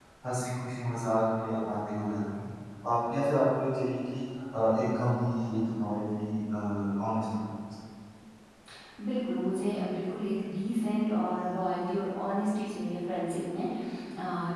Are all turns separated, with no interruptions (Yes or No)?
Yes